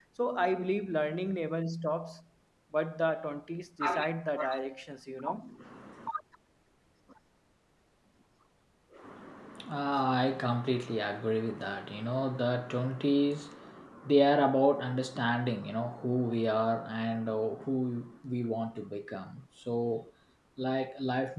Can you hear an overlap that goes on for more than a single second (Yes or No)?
No